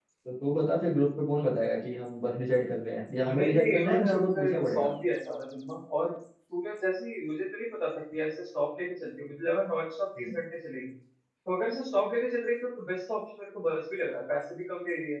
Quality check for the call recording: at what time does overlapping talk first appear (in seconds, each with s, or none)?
3.2 s